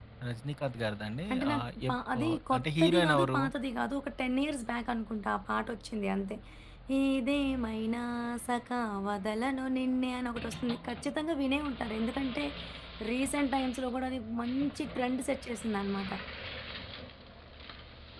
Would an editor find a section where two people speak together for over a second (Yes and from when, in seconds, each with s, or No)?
Yes, from 1.3 s